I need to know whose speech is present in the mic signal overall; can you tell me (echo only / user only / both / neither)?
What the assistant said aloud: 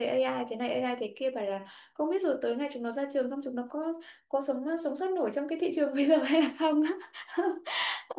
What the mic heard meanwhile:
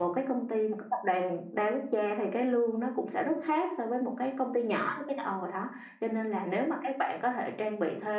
user only